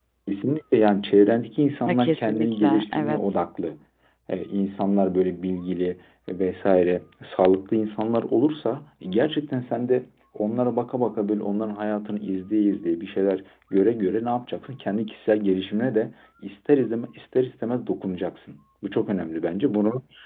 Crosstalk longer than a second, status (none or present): present